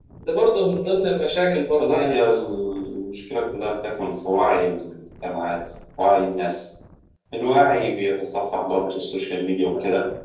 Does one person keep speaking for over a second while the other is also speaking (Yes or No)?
No